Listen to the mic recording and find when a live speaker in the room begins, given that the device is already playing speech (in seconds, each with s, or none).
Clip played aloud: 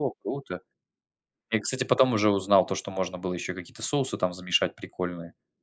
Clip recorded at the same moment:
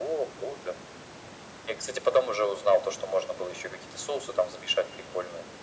none